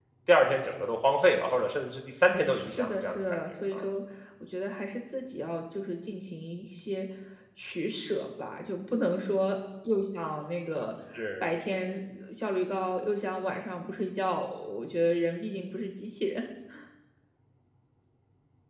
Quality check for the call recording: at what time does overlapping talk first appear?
3 s

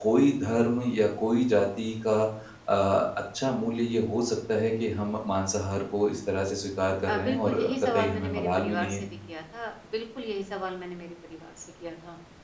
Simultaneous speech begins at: 7 s

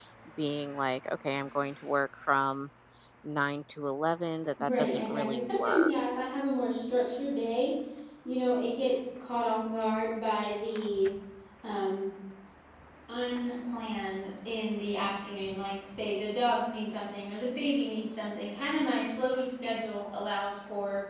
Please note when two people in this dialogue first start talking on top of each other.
5 s

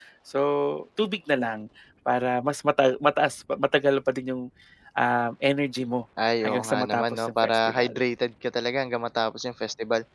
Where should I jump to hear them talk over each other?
6 s

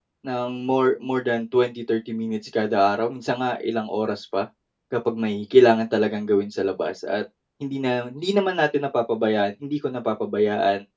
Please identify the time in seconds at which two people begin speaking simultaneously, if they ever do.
none

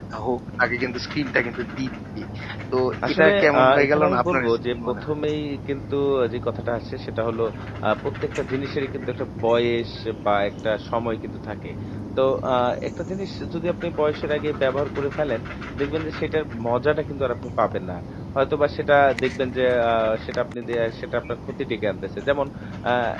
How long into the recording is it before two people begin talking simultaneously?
3 s

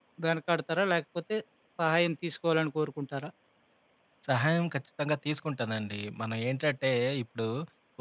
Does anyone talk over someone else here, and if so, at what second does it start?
none

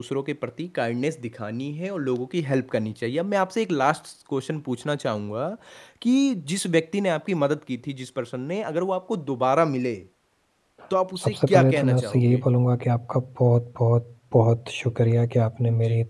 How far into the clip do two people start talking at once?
11 s

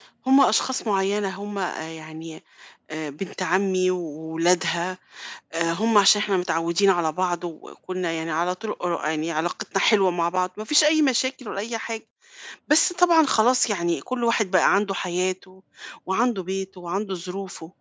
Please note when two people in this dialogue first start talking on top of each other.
none

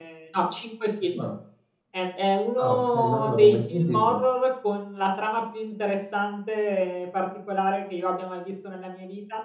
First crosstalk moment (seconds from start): 3 s

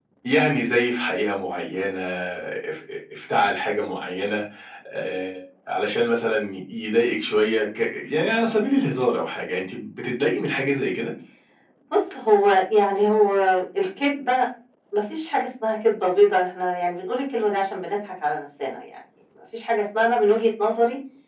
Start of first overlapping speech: none

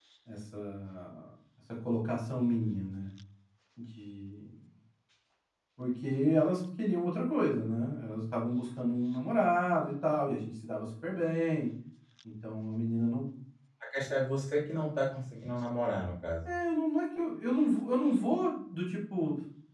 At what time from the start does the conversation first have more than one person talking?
none

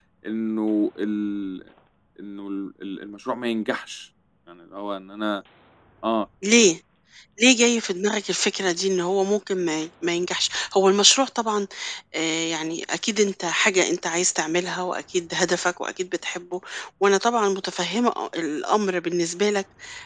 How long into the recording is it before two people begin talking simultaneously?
none

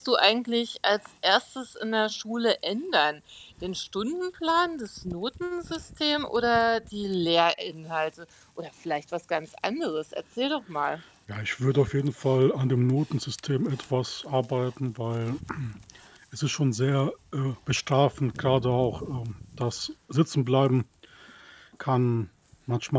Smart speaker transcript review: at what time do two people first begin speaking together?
none

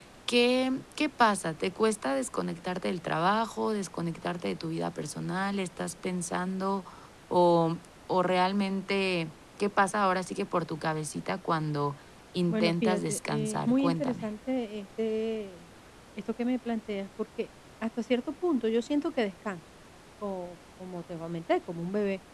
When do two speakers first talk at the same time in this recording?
12 s

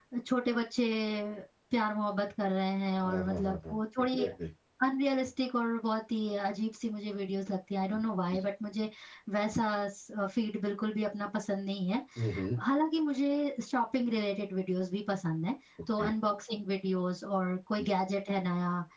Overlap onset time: 3 s

